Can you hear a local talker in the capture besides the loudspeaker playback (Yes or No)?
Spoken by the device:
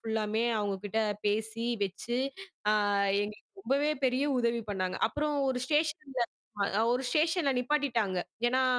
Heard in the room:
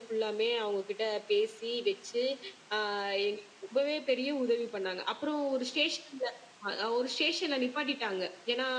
No